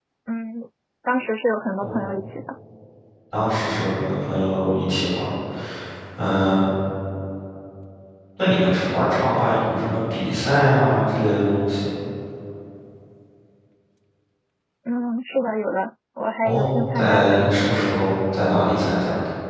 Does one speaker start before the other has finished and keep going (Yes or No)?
Yes